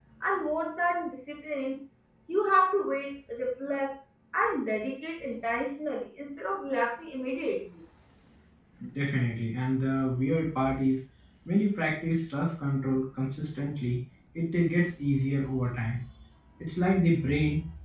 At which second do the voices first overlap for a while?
none

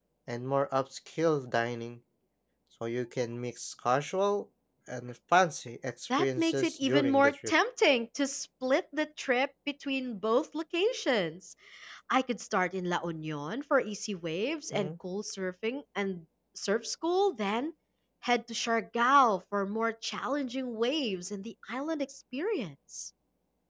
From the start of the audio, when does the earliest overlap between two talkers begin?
6 s

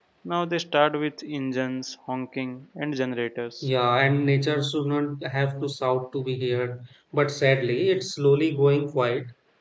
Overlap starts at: none

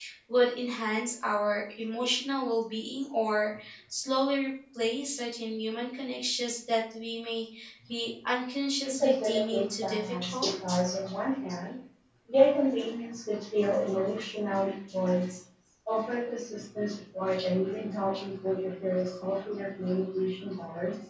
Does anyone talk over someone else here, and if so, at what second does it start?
9 s

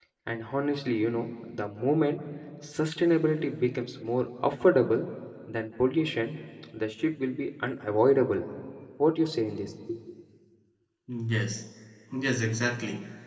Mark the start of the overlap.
none

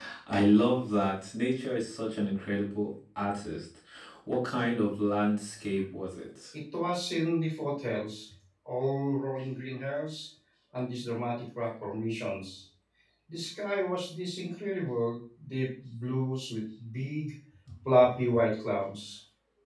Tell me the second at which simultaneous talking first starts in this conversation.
none

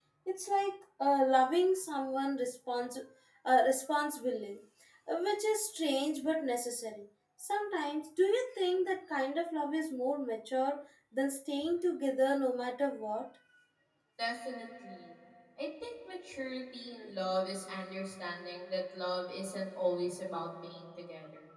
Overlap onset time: none

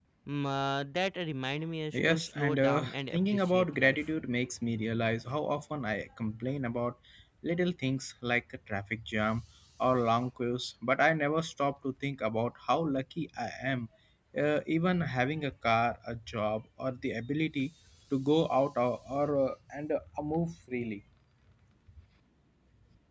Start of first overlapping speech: 2 s

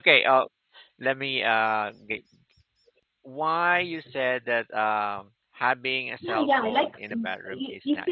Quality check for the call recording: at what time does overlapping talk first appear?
6 s

